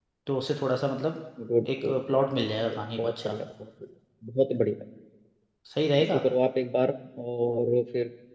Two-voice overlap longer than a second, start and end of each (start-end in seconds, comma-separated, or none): 1.8-3.4